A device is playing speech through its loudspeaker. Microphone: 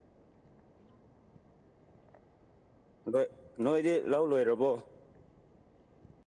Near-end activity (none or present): present